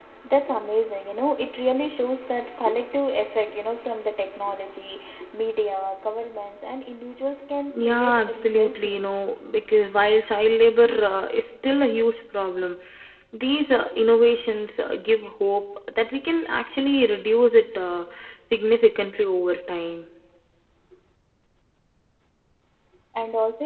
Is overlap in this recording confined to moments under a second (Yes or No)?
No